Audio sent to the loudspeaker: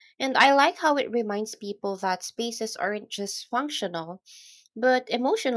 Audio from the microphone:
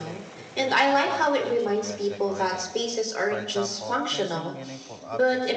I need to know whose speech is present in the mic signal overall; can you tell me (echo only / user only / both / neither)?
both